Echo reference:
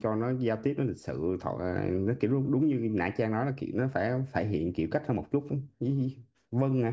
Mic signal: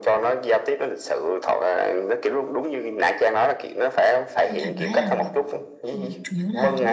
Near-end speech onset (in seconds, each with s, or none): 4.5 s